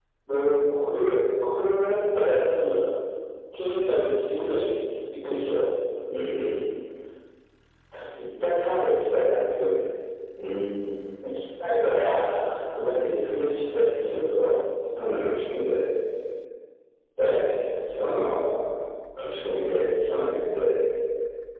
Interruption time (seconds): none

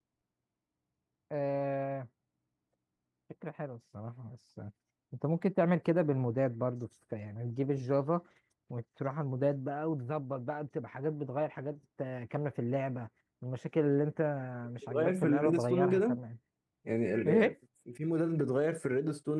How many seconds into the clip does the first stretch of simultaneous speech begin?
14.9 s

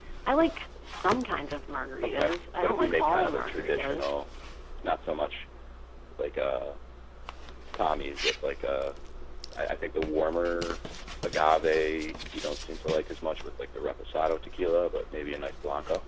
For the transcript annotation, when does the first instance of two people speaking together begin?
2.0 s

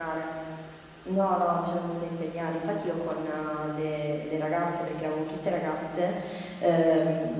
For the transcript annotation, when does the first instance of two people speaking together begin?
none

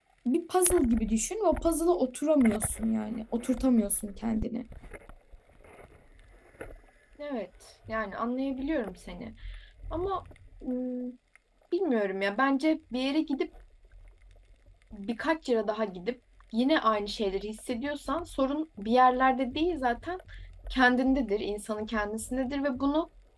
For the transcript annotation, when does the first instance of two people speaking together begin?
none

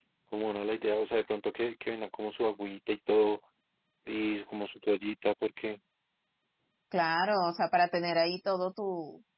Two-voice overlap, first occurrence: none

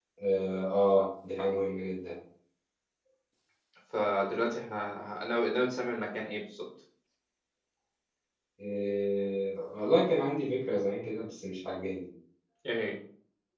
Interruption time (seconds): none

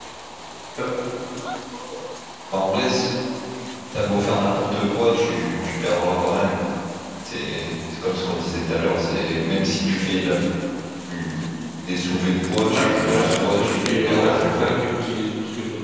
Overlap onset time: 12.7 s

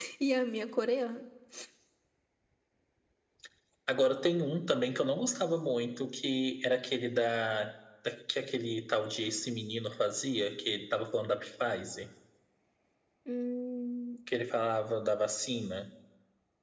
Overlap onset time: none

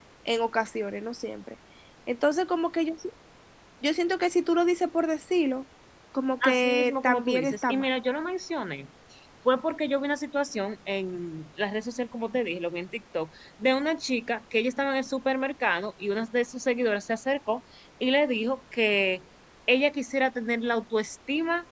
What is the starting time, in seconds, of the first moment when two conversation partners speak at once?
6.4 s

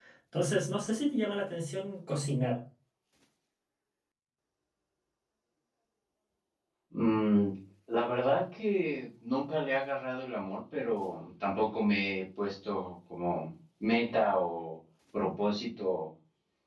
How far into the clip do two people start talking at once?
none

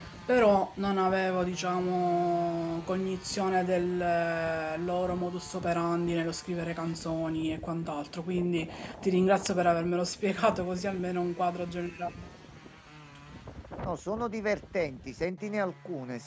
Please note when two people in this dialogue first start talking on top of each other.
none

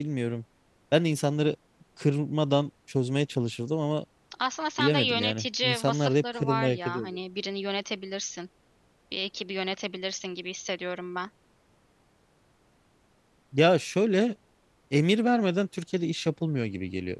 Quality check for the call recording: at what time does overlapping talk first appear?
4.8 s

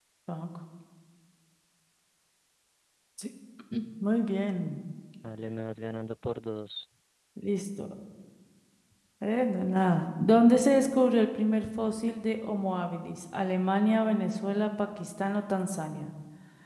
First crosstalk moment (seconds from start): none

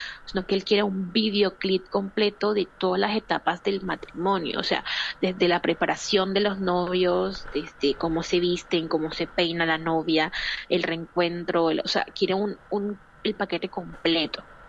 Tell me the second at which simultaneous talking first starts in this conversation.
none

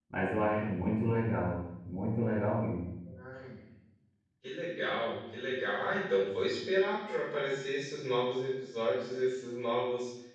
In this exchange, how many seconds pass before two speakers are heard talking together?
none

